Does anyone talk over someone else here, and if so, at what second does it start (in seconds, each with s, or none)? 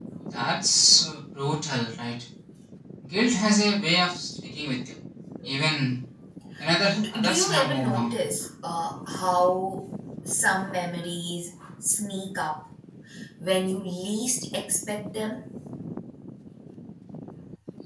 7.0 s